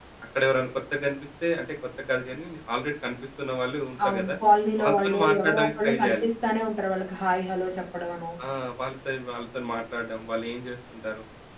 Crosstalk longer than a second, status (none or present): present